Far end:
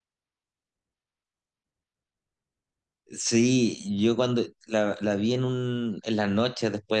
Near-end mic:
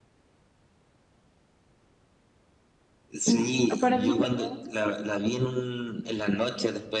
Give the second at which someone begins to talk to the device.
3.2 s

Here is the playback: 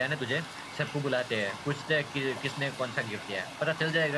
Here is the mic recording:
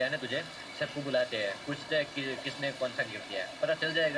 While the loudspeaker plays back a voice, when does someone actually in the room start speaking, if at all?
none

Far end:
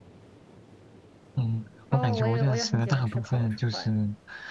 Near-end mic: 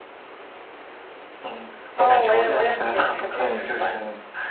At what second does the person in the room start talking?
3.3 s

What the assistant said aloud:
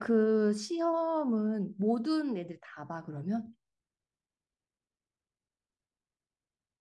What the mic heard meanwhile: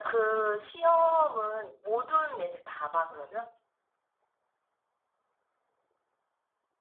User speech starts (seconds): none

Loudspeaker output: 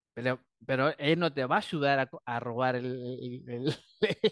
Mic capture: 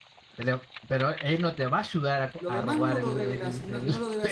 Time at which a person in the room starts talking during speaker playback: 2.4 s

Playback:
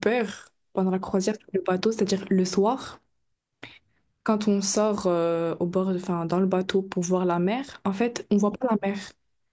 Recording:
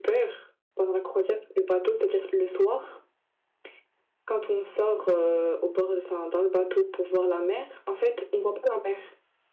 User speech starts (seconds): none

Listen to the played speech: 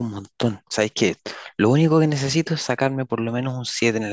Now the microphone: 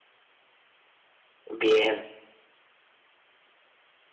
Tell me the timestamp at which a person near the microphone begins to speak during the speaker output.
1.5 s

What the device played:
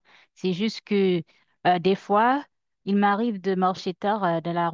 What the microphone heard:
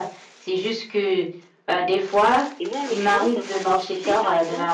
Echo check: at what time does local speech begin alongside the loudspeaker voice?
2.6 s

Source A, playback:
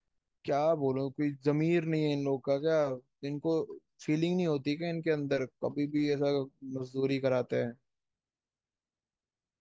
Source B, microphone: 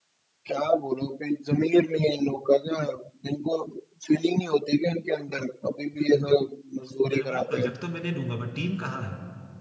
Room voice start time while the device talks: 7.1 s

